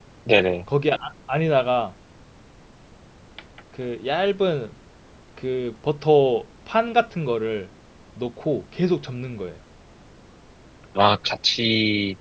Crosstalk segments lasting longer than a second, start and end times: none

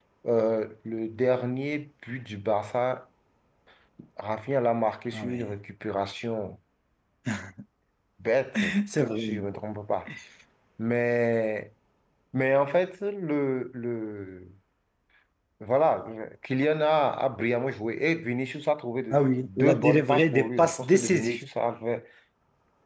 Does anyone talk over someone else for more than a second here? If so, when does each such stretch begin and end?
19.1-21.4

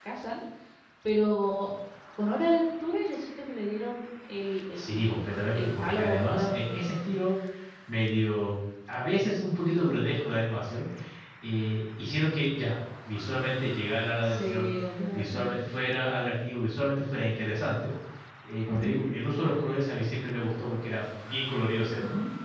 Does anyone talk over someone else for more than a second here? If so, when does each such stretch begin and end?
4.8-6.8

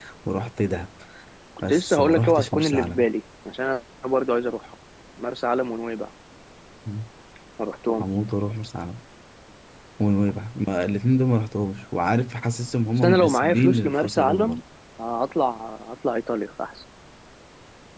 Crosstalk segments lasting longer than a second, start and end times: 1.7-3.0, 13.0-14.6

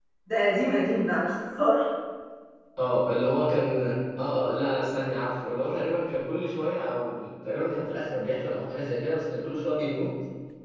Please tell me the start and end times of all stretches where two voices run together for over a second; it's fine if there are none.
none

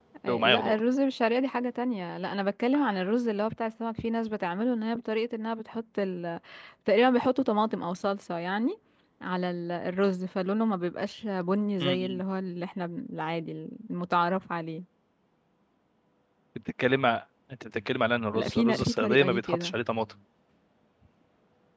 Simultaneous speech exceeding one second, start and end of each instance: 18.3-19.7

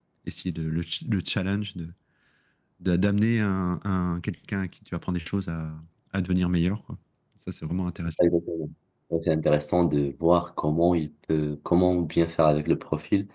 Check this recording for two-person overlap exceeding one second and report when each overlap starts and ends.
none

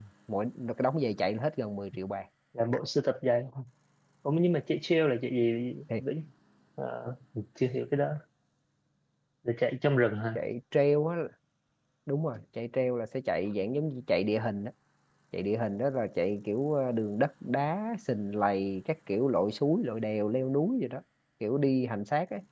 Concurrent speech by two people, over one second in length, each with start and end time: none

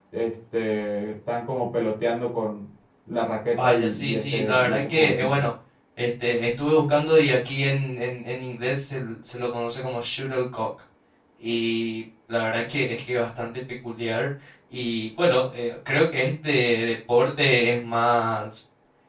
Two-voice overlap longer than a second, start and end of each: 3.6-5.3

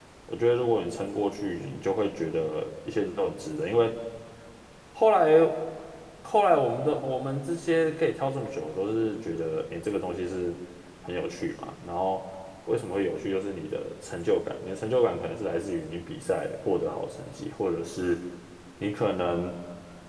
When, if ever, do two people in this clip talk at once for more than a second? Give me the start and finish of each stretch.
none

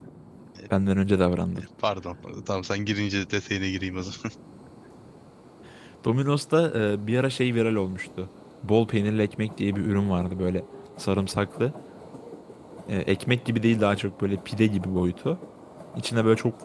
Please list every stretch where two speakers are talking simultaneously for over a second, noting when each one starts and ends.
none

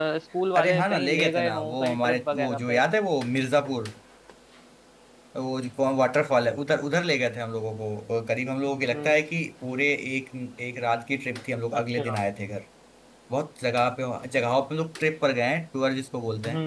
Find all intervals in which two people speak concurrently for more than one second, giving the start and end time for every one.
0.6-2.8

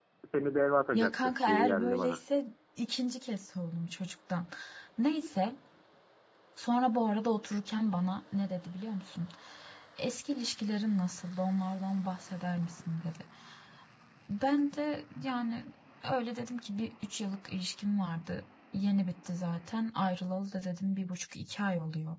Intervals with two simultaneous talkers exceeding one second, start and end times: 0.9-2.2

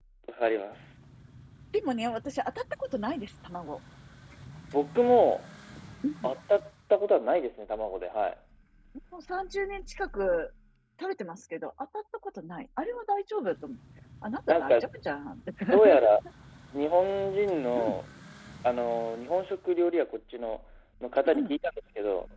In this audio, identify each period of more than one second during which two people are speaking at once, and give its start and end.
none

